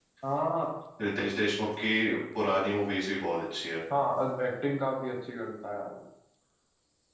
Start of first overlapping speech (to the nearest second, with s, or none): none